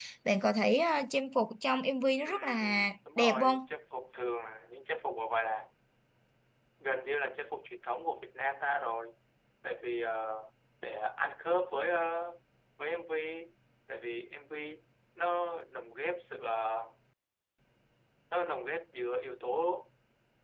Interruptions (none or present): present